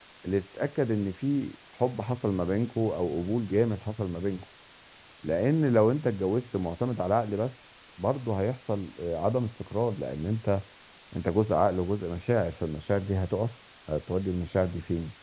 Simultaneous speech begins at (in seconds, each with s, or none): none